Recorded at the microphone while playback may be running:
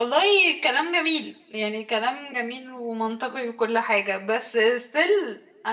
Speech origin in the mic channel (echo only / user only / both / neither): user only